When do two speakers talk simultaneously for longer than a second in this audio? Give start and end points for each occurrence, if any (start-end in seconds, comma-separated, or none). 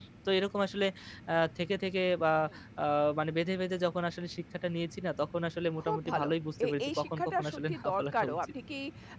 6.7-8.5